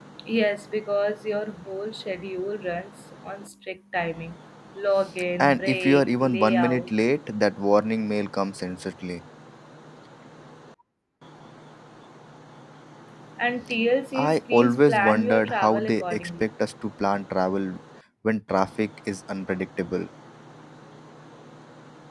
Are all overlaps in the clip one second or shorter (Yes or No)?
No